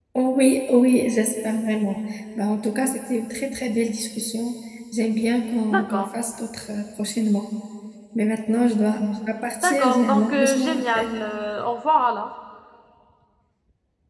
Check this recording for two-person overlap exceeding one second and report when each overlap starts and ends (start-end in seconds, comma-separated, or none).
9.6-11.1